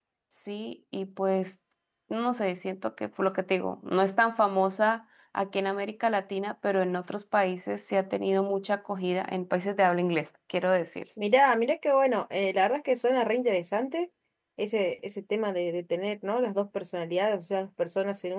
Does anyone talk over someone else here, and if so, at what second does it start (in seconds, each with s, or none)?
none